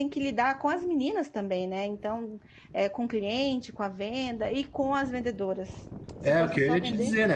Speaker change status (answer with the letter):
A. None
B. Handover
B